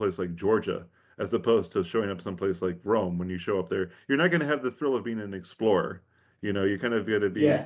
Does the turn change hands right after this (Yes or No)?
No